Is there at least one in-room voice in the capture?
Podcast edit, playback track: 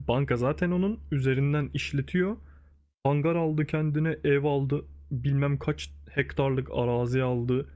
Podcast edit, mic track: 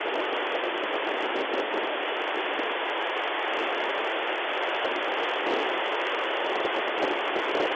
No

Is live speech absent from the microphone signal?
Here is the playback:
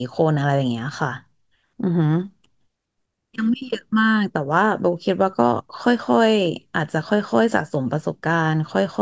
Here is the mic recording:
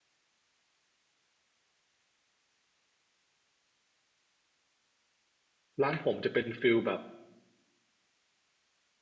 No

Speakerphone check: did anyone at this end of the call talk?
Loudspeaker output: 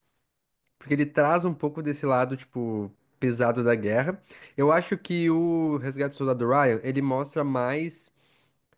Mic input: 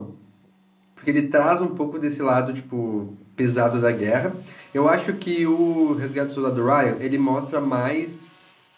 No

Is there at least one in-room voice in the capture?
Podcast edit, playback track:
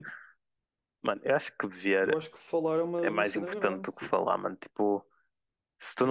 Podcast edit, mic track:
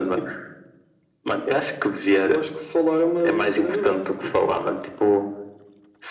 No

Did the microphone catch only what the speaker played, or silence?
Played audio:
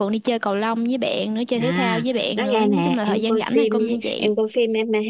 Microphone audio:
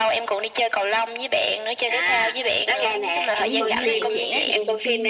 No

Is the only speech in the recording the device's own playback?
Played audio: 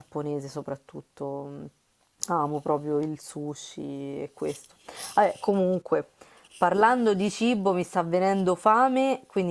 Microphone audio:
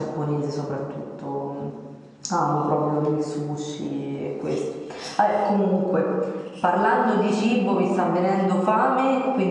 Yes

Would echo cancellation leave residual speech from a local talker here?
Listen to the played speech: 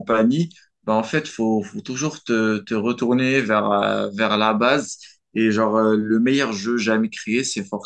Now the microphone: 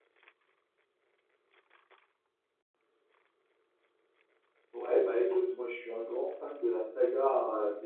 Yes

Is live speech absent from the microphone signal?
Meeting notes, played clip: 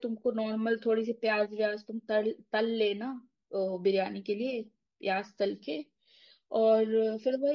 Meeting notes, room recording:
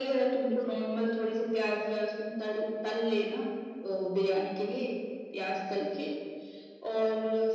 No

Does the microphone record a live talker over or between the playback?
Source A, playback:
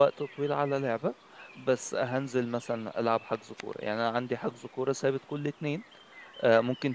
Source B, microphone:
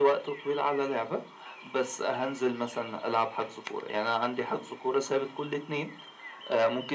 No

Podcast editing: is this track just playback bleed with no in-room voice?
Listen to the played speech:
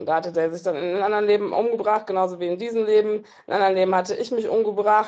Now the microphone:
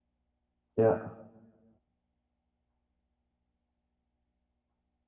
No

